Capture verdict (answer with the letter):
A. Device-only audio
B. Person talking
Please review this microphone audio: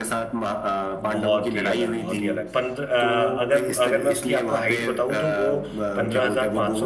B